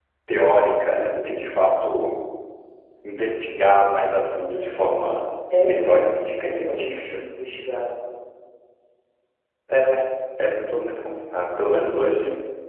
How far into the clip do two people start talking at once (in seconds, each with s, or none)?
5.5 s